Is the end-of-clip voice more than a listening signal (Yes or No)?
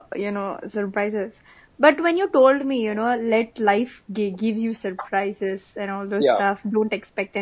No